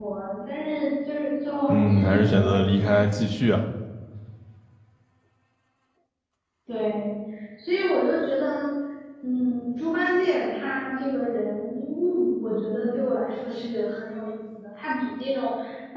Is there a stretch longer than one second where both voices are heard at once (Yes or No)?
Yes